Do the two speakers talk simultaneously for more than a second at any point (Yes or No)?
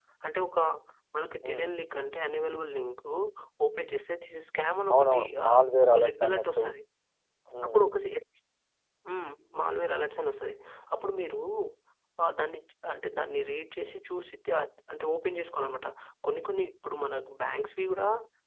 Yes